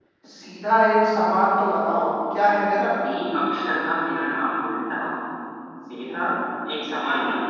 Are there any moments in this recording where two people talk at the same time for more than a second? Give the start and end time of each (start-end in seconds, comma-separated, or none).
none